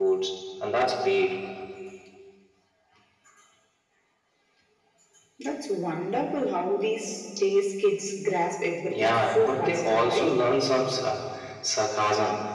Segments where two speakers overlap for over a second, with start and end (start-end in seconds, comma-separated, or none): 8.9-10.4